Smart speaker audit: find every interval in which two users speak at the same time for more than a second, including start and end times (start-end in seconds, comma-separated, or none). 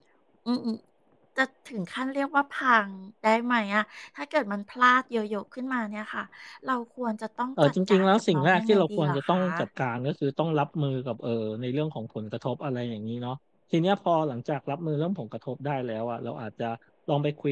7.6-9.4